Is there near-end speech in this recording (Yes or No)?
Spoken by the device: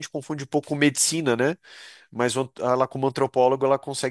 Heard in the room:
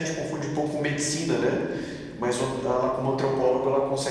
No